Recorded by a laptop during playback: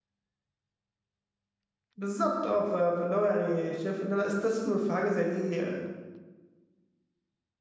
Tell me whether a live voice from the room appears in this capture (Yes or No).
Yes